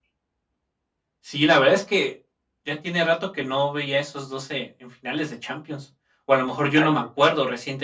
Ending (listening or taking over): listening